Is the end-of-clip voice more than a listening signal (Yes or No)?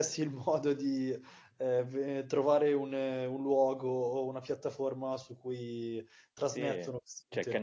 Yes